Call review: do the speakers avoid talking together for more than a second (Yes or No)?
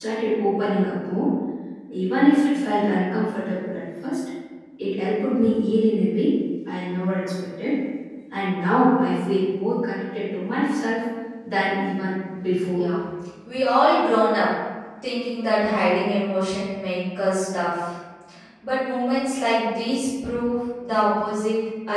Yes